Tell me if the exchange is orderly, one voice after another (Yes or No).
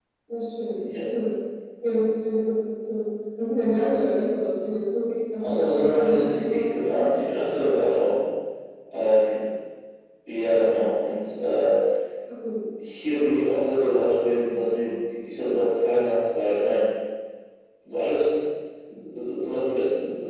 No